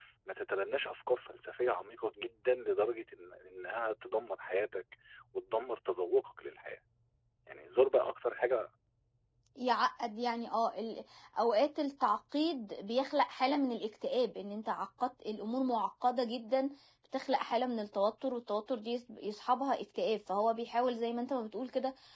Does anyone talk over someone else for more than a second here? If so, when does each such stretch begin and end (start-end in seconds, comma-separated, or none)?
none